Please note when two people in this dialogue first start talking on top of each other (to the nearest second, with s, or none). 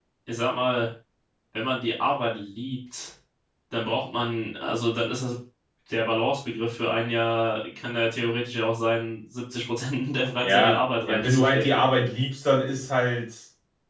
10 s